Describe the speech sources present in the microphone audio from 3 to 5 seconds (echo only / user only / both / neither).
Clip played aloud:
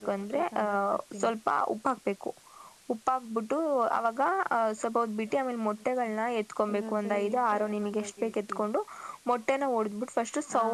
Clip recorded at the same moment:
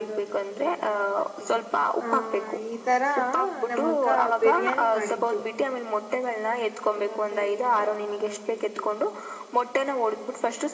both